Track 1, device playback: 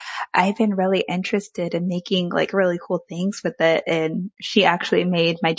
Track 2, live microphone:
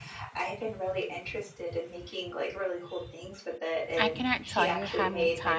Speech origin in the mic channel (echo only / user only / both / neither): both